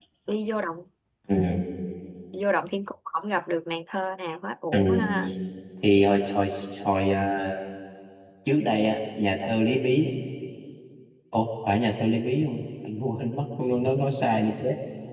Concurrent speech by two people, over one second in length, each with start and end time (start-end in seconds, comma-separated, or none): none